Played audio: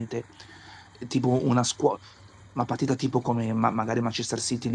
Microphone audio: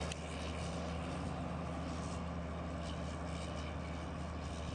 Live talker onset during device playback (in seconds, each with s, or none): none